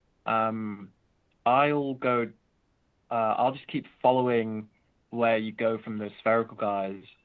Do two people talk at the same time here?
No

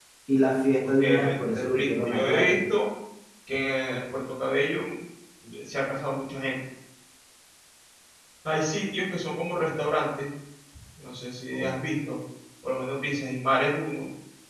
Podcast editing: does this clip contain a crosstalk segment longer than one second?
Yes, from 1.0 s

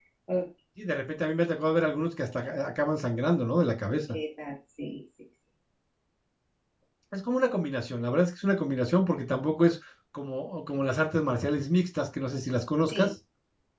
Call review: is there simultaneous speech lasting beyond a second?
No

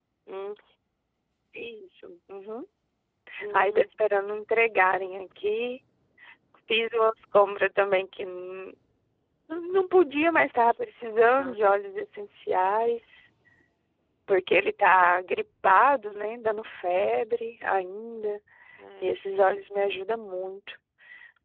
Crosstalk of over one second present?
No

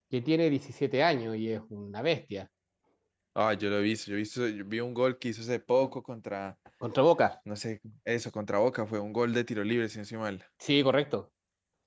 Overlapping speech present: No

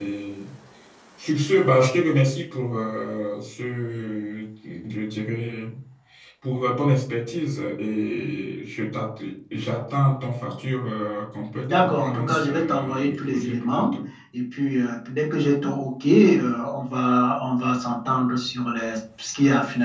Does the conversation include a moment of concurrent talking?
Yes, from 11.7 s

